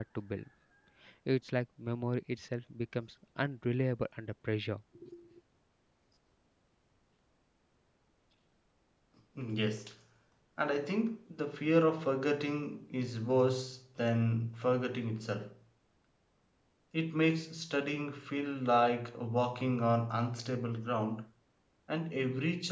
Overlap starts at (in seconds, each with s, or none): none